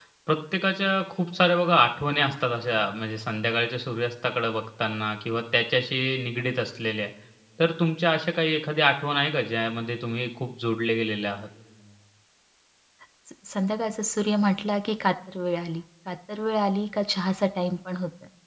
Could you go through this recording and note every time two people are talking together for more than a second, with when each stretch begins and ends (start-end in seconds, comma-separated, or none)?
none